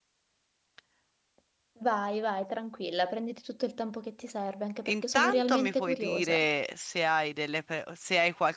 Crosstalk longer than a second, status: present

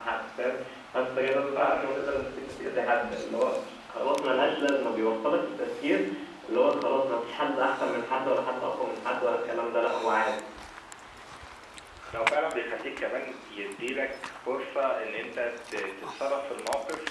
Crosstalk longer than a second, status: none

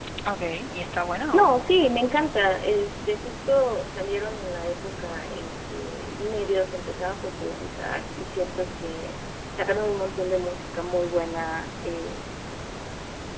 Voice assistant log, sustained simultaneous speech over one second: present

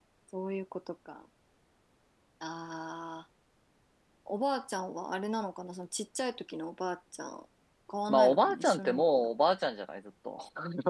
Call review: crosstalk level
present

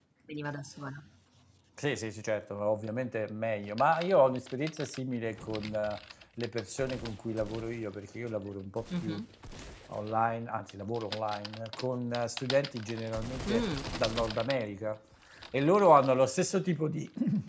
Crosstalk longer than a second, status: none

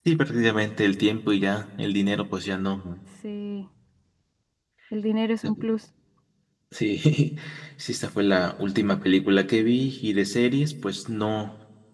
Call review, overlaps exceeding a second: none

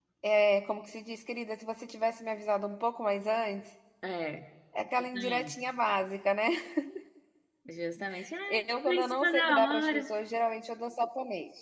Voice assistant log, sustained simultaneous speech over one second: present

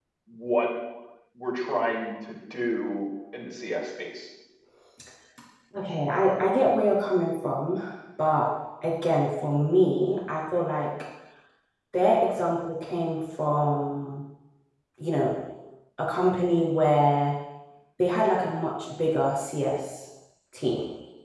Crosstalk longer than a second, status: none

